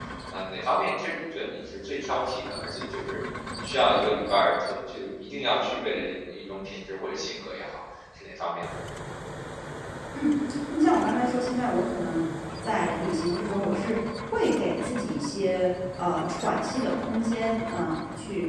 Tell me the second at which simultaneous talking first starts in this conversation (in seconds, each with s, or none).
none